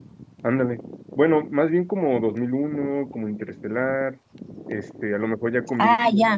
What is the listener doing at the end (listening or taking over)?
taking over